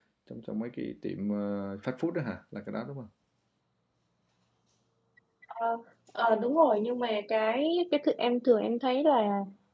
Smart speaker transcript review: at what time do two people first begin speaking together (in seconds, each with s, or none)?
none